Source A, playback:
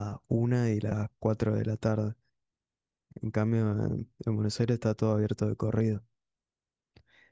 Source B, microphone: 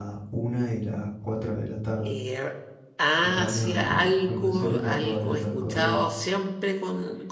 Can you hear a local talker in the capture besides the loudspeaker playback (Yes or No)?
Yes